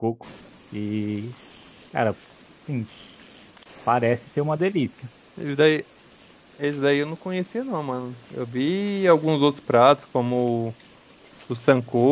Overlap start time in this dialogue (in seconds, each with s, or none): none